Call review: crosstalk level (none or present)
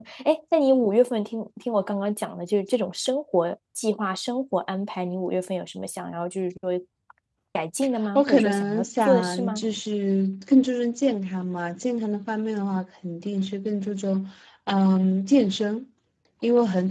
present